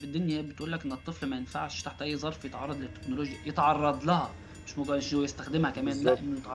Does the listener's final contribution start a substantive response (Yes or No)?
Yes